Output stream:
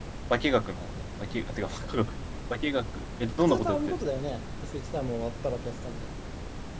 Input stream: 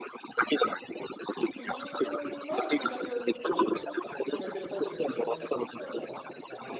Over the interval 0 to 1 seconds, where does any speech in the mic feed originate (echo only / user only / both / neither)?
echo only